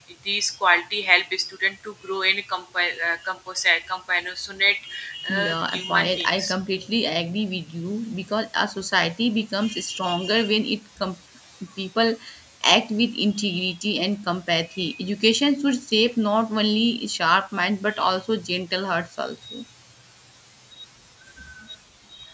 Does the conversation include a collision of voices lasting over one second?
Yes, from 5.3 s

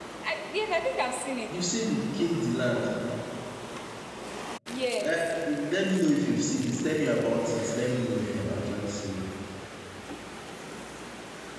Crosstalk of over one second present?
No

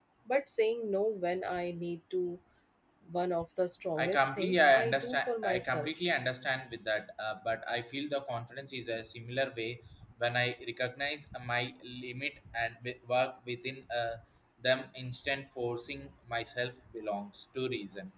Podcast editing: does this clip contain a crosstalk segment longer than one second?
Yes, from 4.0 s

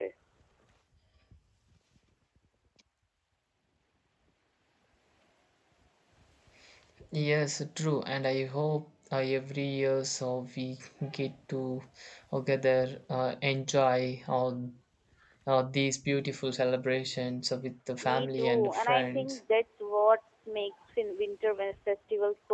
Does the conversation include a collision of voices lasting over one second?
Yes, from 18.0 s

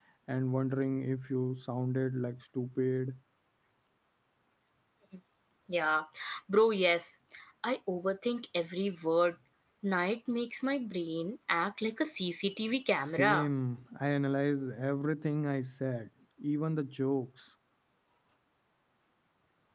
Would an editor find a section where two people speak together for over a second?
No

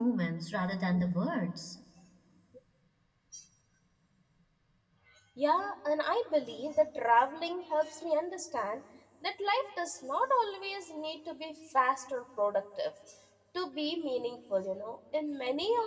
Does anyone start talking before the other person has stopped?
No

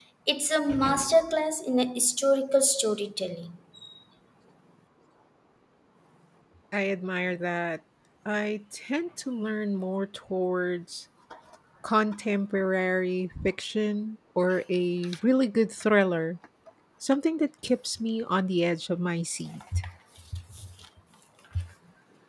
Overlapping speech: No

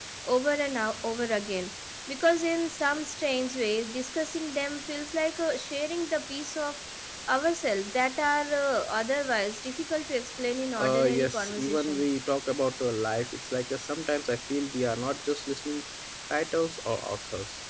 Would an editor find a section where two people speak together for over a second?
Yes, from 10.8 s

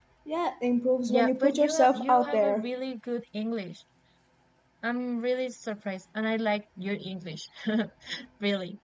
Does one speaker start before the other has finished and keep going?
Yes, from 1.1 s

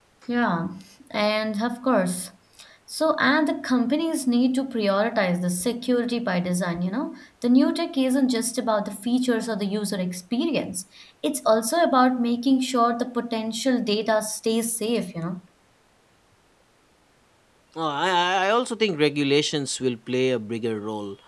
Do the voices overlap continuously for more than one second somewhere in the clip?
No

